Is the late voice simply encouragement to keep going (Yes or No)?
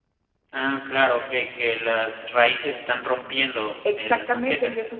No